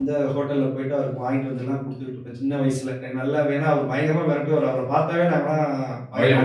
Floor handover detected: No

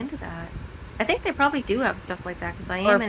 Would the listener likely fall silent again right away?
No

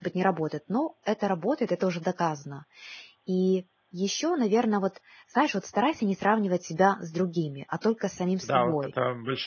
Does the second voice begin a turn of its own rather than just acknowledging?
Yes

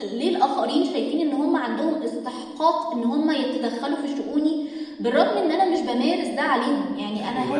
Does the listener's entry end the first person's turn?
Yes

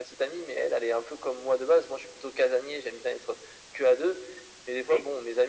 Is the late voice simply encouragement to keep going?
Yes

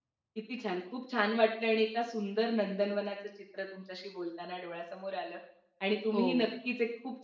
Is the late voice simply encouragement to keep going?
Yes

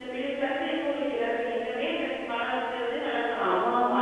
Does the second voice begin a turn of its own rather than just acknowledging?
Yes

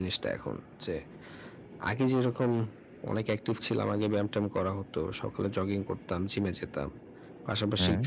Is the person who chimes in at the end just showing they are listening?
Yes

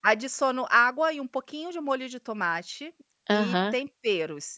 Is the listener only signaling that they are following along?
Yes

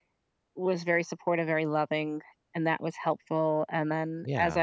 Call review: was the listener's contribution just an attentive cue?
Yes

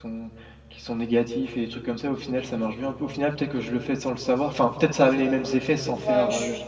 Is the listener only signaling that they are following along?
No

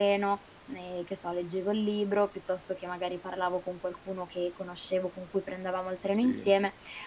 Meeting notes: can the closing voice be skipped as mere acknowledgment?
Yes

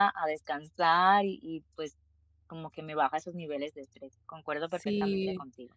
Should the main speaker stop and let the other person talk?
Yes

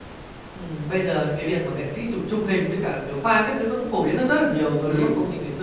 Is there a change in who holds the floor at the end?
No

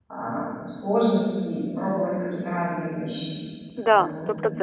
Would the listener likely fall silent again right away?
No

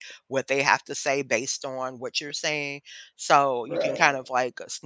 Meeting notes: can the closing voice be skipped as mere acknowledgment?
Yes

